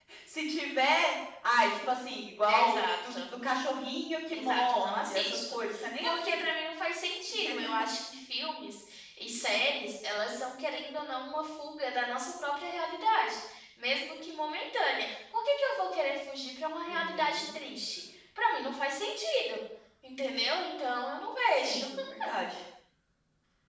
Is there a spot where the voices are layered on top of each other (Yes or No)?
Yes